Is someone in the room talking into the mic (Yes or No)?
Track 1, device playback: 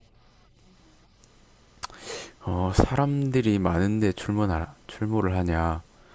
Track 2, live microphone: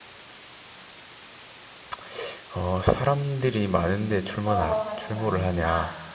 Yes